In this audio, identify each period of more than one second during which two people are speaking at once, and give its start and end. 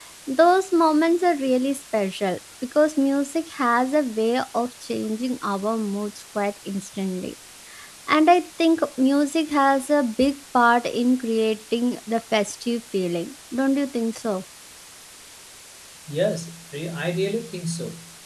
none

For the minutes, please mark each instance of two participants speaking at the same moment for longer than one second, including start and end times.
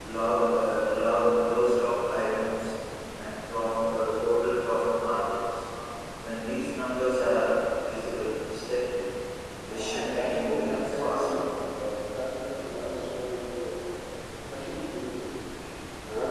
9.7-11.4

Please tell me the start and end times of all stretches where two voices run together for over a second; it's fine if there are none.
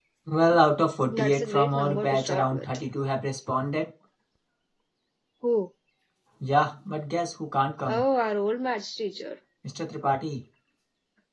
1.1-2.7

